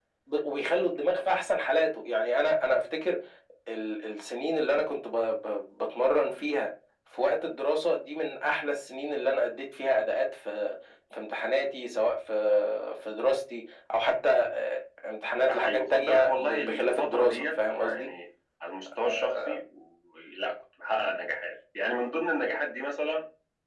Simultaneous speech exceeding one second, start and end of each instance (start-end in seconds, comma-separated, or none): 15.5-18.1